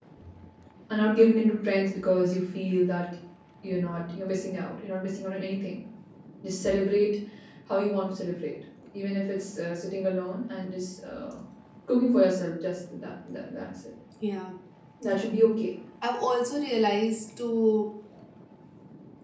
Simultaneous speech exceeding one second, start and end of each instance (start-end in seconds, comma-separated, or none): none